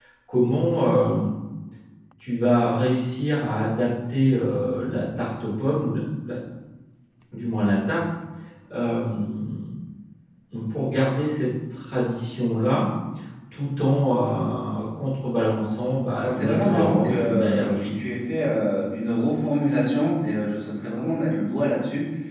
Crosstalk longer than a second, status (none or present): present